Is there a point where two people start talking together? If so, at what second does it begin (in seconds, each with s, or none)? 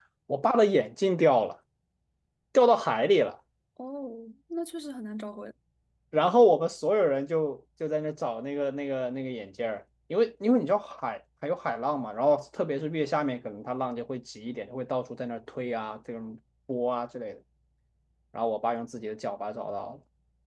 none